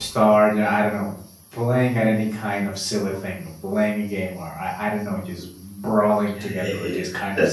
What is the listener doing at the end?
taking over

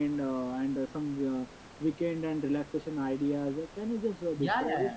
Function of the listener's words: taking over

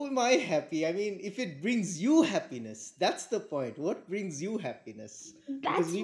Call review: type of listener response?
taking over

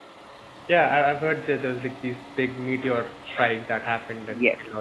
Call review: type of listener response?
taking over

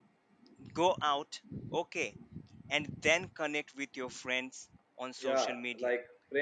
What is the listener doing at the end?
taking over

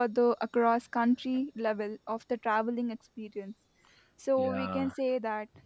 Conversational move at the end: listening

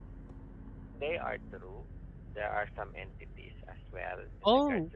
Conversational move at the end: taking over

